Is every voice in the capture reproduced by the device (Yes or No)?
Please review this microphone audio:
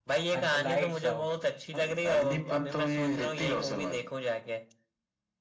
No